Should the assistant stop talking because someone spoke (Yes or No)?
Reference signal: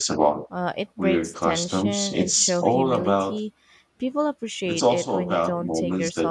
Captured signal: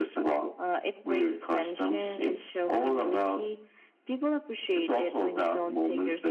No